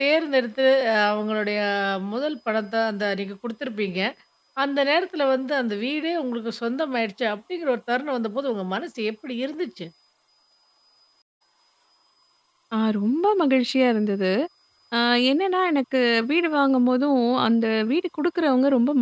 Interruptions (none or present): none